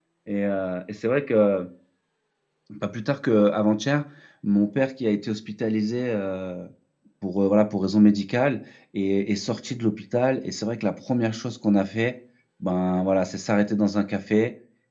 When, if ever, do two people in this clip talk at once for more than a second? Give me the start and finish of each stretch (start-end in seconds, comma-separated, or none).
none